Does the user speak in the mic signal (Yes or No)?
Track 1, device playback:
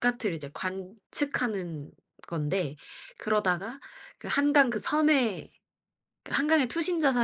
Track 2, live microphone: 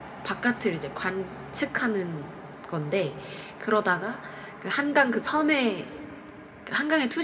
No